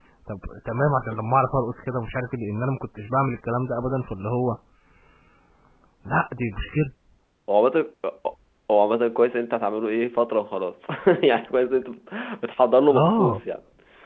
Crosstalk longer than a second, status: none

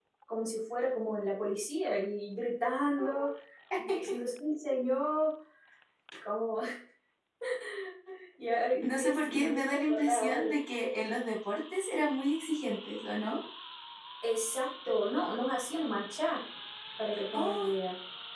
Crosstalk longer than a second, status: present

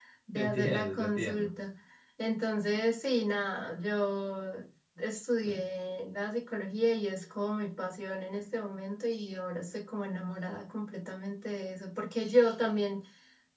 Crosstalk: present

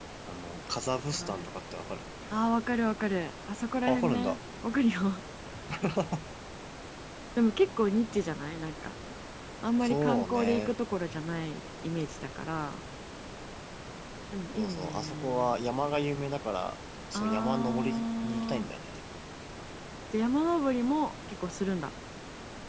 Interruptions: present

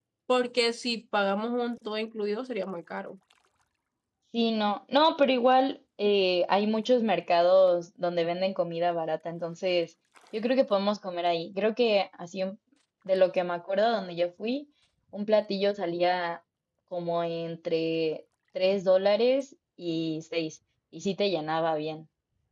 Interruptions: none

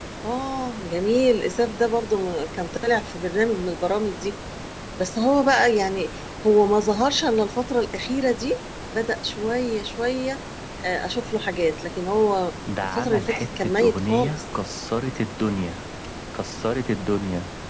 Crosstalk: present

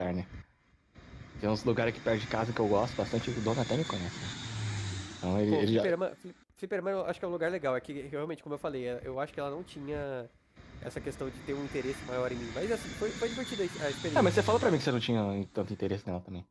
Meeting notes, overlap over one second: none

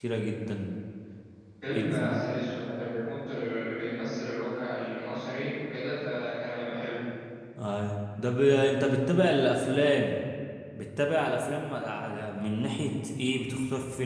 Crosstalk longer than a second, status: none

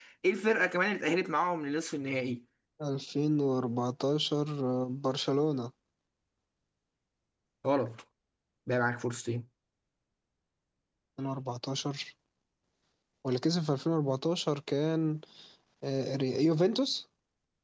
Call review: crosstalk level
none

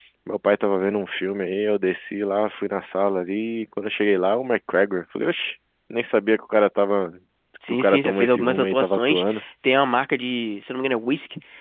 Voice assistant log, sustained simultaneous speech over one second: present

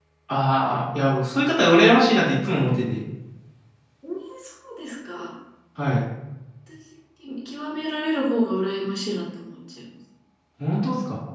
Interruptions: none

